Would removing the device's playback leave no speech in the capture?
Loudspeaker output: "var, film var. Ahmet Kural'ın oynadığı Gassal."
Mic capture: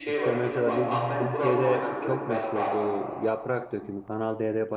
No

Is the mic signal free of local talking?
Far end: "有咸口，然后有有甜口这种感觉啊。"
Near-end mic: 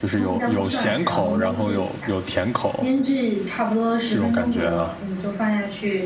No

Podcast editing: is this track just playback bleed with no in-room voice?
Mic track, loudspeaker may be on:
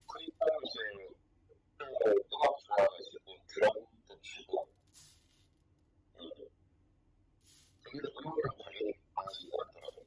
Yes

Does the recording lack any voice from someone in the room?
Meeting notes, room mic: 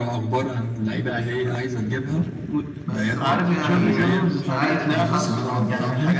No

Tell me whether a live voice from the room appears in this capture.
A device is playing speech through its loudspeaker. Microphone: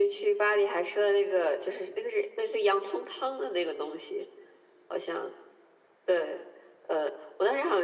No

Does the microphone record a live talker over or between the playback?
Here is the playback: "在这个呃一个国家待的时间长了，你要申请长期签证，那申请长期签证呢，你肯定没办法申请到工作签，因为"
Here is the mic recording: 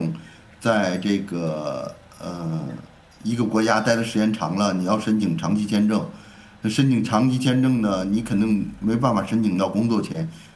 No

